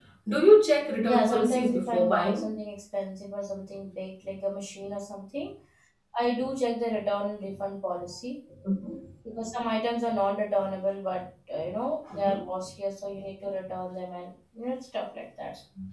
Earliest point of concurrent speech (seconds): 1.0 s

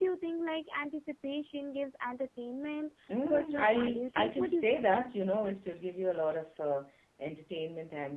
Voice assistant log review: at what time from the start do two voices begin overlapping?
3.1 s

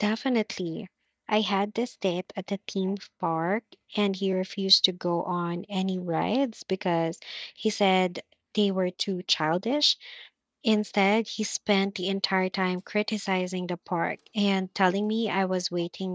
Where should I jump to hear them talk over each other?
none

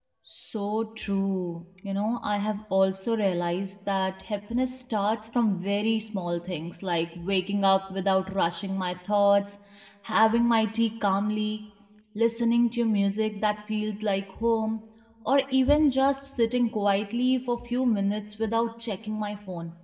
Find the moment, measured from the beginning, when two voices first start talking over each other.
none

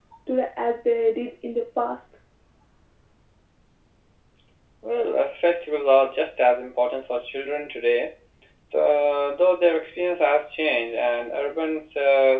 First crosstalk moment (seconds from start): none

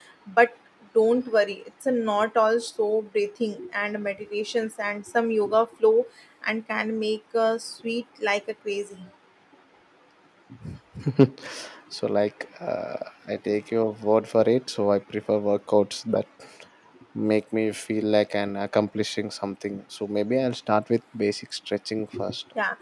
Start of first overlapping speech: none

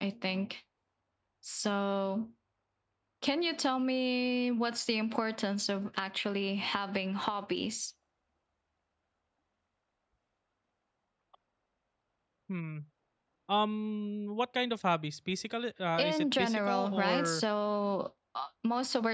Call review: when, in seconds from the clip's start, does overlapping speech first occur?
16.0 s

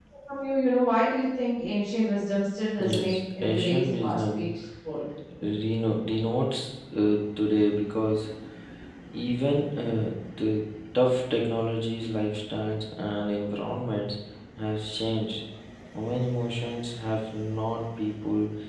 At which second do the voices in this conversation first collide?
2.8 s

